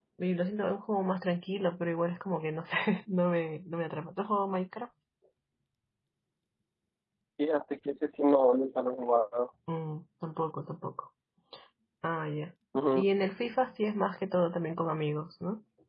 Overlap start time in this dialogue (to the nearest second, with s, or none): none